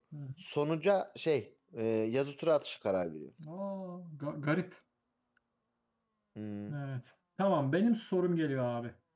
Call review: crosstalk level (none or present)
none